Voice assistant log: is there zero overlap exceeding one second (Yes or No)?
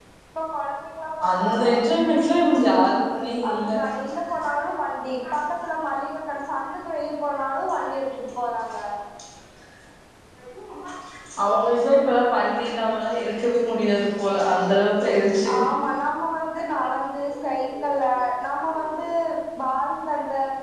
Yes